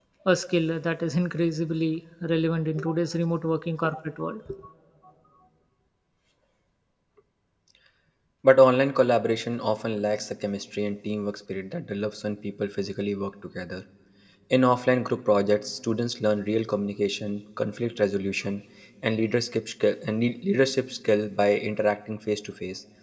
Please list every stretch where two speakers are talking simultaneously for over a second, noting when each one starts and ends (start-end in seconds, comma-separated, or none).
none